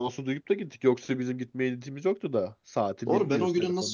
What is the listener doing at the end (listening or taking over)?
taking over